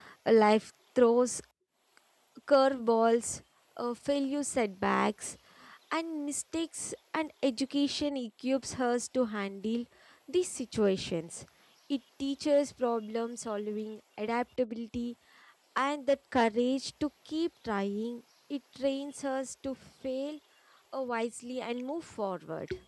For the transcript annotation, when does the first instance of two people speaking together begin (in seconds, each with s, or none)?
none